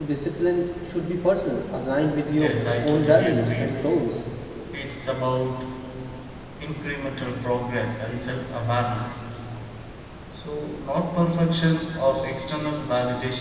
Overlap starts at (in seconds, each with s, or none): 2.2 s